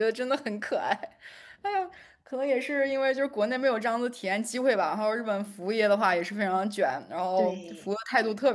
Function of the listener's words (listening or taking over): listening